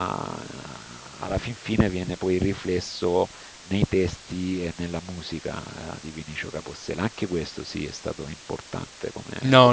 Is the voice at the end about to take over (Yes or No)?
Yes